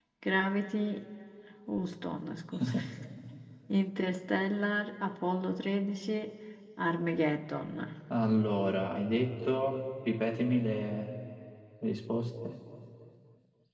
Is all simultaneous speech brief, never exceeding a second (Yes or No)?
Yes